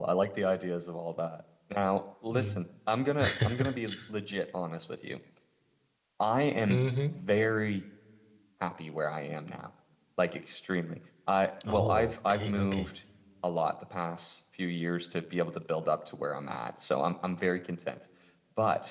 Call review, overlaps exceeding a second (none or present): present